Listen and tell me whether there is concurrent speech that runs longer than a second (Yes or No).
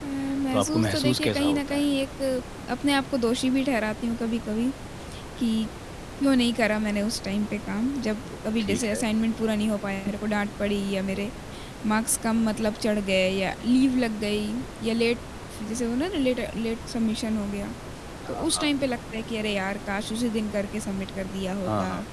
Yes